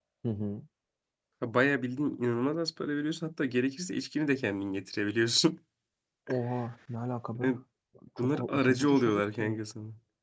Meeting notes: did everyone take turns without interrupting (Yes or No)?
No